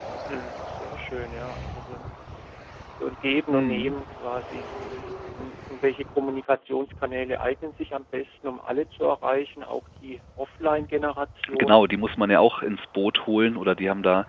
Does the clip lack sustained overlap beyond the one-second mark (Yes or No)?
Yes